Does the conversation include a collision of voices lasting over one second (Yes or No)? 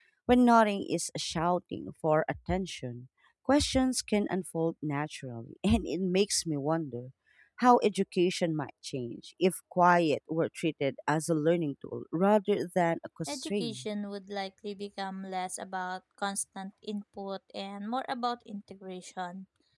No